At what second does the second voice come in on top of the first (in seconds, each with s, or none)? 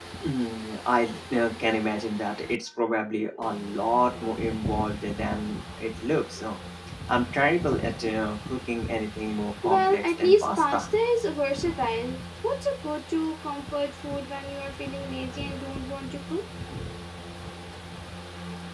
9.6 s